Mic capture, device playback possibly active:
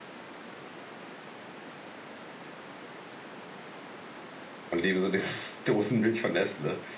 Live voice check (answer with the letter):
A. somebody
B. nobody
A